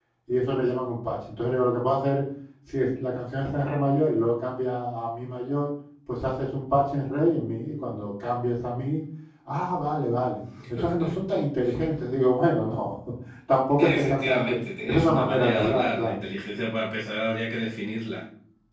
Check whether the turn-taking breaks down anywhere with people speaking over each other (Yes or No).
Yes